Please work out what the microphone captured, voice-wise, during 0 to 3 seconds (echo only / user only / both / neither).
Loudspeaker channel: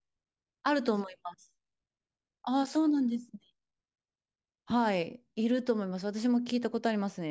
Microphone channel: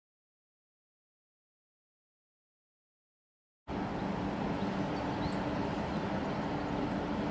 neither